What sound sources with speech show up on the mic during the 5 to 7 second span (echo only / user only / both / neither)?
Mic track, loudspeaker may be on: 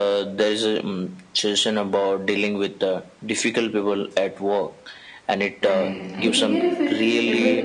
both